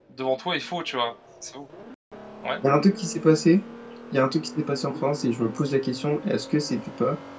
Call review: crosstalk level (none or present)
none